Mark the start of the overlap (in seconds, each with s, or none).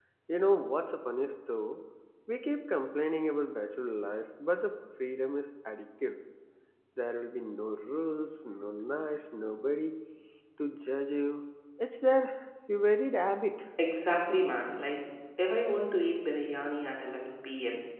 none